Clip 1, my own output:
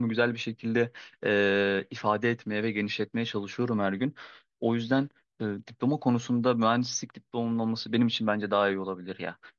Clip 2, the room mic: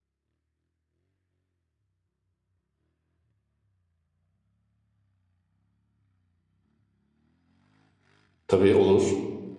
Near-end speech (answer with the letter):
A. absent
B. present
B